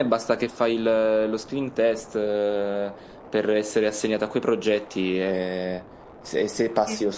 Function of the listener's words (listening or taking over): listening